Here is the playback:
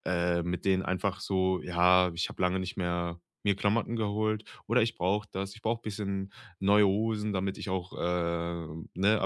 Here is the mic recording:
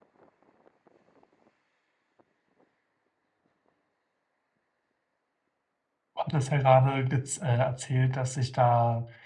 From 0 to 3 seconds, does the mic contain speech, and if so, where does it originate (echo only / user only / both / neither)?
neither